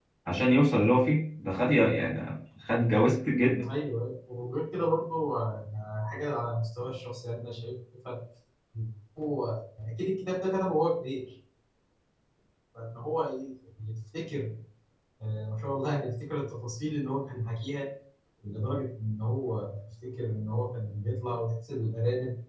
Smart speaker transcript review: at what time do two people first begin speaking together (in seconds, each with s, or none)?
none